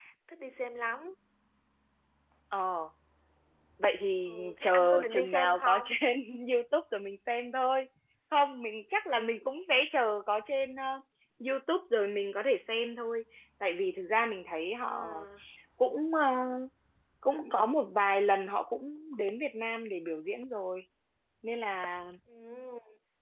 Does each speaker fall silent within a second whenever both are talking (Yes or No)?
No